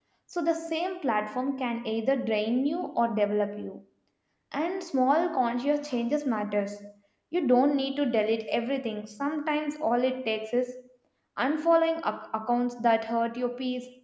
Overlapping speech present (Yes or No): No